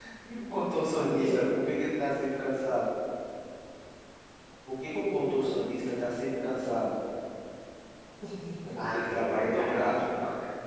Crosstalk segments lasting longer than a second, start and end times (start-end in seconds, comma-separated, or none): 8.8-10.0